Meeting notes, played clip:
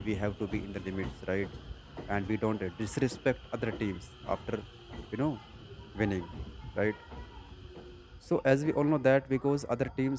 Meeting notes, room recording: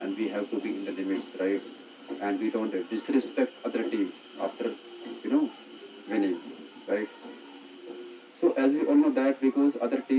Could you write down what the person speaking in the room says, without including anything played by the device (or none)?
none